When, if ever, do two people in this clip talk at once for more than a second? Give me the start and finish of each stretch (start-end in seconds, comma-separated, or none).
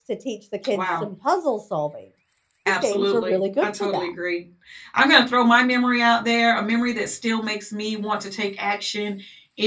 2.8-4.1